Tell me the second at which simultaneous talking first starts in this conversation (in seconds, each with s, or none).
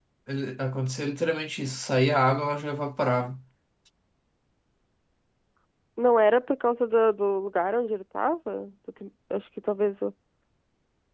none